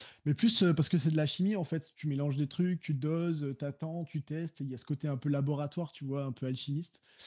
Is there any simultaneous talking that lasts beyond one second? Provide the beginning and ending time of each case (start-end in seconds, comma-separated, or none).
none